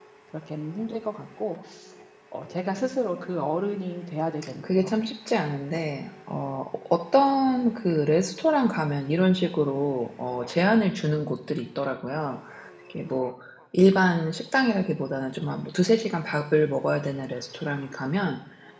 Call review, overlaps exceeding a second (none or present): none